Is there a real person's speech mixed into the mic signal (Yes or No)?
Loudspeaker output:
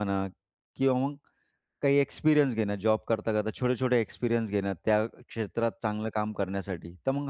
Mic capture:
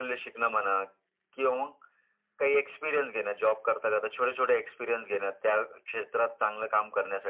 No